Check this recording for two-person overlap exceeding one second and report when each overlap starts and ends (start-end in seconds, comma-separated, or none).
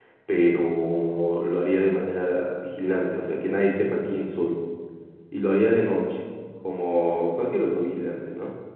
none